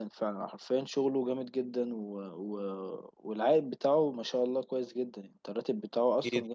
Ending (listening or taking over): taking over